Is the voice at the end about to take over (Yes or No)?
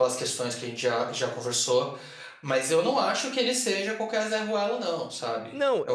Yes